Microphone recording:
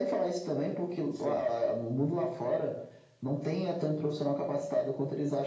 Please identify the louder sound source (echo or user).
echo